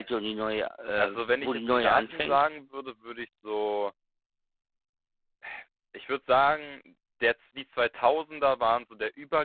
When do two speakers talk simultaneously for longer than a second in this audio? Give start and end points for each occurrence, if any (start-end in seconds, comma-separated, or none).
1.0-2.4